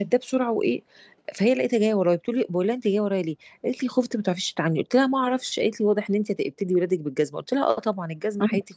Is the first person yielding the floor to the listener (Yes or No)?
No